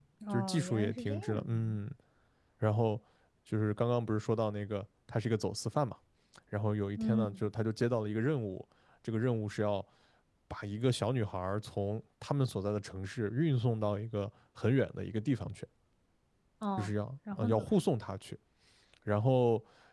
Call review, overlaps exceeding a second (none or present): present